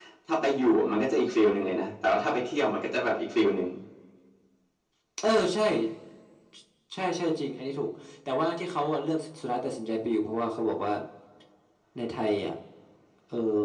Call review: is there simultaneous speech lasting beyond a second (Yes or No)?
No